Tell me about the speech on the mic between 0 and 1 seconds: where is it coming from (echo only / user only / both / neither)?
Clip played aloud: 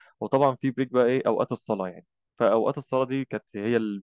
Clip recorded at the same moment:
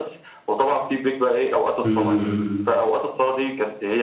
echo only